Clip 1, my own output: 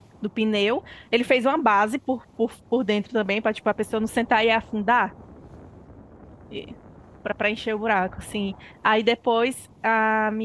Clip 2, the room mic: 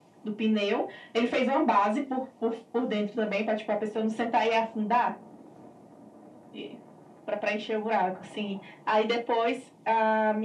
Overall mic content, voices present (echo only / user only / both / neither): echo only